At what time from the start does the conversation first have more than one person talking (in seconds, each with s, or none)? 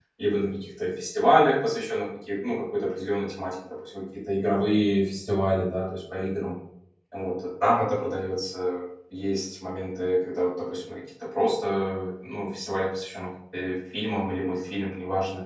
none